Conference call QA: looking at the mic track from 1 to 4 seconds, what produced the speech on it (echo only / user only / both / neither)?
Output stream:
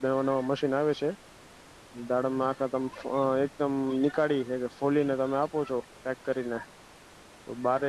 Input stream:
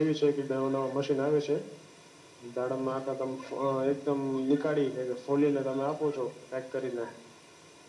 echo only